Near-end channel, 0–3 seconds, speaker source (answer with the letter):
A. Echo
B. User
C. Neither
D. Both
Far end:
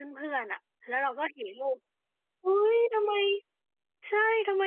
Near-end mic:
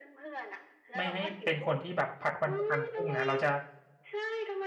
D